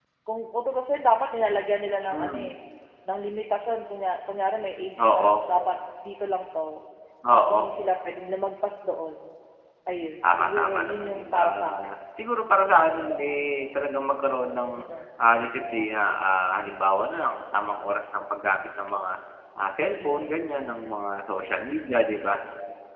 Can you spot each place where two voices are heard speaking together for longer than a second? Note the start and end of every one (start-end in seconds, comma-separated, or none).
10.2-11.9